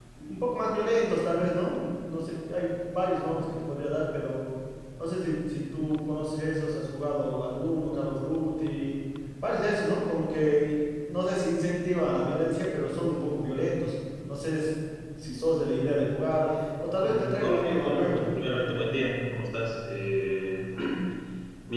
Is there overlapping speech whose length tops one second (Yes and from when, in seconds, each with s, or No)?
Yes, from 17.0 s